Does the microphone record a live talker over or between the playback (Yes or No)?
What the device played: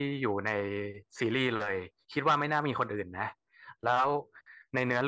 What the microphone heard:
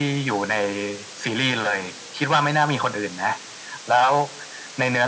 No